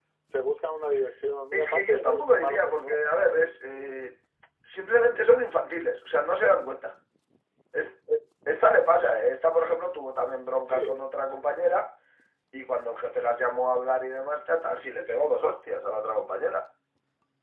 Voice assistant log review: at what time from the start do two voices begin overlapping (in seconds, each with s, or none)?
1.5 s